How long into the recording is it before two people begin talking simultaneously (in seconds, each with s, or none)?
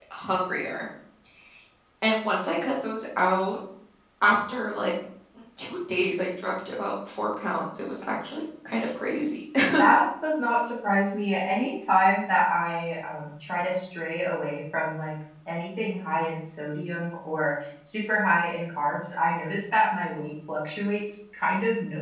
none